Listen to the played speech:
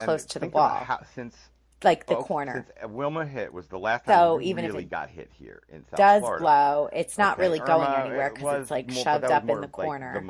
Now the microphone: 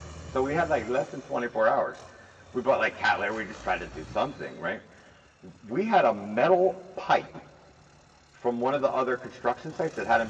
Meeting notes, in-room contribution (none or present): present